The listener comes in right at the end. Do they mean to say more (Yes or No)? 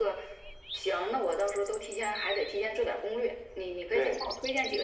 No